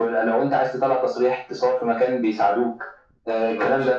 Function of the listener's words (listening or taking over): listening